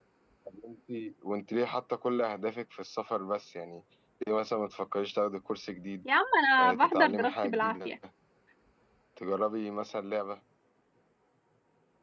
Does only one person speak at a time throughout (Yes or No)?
No